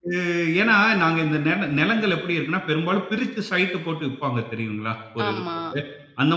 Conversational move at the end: listening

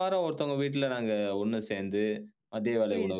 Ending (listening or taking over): listening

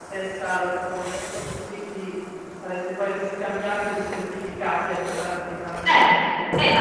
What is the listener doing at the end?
taking over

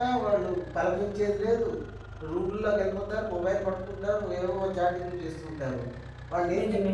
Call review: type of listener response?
listening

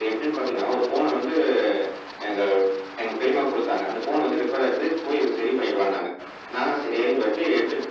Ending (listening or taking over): listening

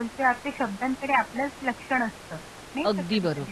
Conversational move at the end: taking over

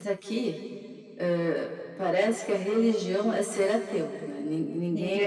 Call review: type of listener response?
listening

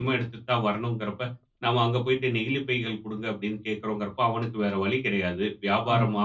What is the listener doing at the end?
listening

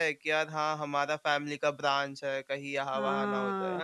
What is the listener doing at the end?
taking over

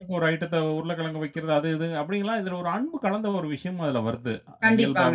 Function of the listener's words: taking over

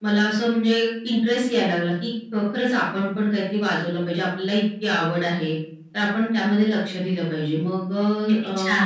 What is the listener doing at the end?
taking over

